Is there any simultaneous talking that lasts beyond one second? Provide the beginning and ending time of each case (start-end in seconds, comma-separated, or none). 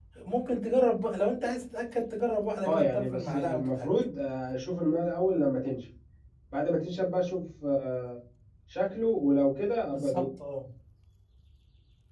2.6-3.9